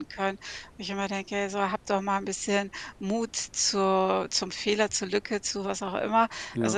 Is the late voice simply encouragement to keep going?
Yes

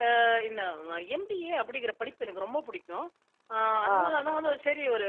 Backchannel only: Yes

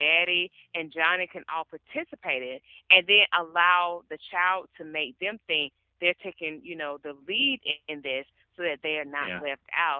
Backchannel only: Yes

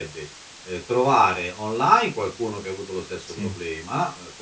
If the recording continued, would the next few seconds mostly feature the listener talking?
No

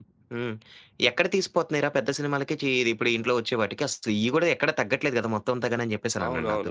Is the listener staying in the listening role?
No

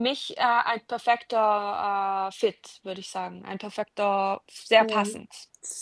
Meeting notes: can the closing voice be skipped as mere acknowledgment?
No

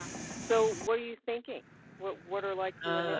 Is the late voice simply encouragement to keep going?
No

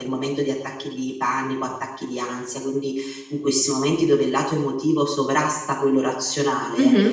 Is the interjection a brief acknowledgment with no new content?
Yes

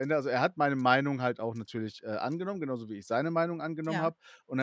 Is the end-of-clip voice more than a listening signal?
No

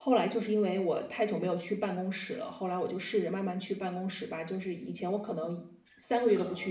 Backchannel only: Yes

